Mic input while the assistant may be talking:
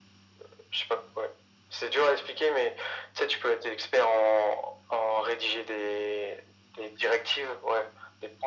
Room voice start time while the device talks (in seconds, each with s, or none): none